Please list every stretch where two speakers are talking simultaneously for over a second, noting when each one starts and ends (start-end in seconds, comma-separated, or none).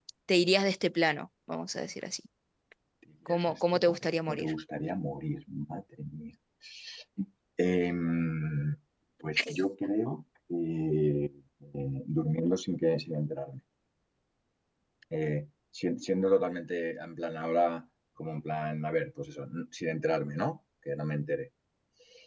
3.3-4.5